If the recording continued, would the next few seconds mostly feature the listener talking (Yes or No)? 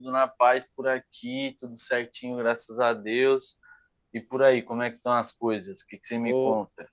Yes